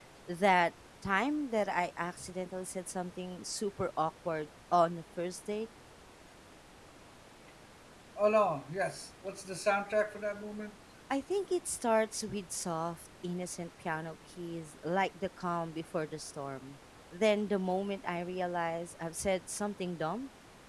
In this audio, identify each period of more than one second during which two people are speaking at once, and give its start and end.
none

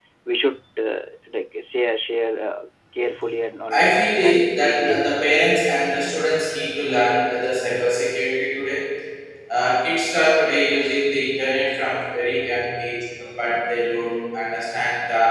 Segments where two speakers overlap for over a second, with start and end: 3.8-5.0

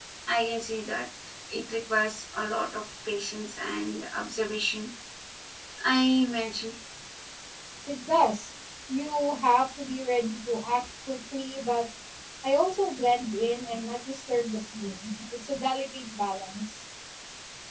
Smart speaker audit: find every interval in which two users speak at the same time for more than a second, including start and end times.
none

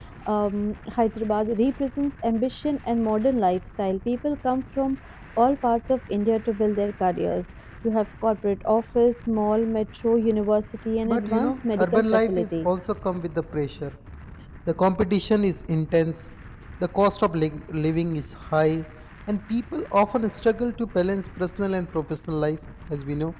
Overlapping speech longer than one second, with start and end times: 11.0-12.7

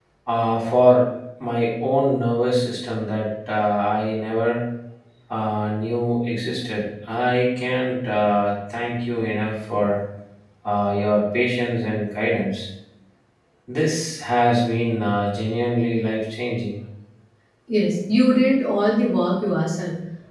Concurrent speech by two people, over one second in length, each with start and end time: none

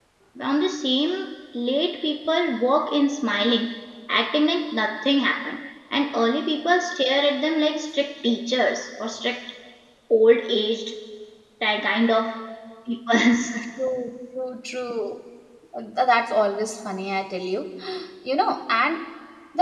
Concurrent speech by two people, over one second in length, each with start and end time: none

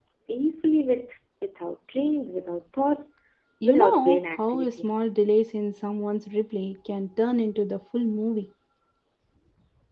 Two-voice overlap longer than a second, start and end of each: 3.6-4.9

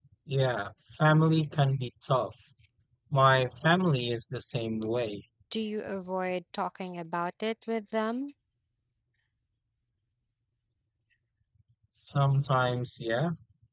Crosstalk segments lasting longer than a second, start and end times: none

